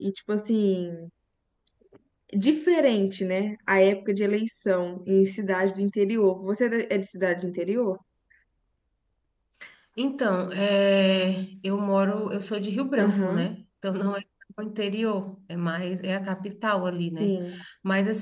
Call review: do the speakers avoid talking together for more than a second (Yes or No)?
Yes